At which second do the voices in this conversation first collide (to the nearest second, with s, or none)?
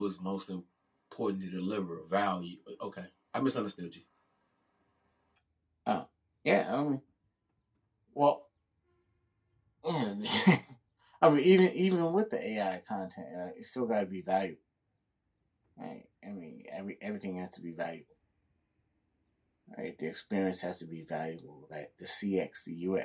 none